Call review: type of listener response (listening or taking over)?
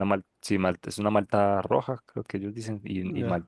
taking over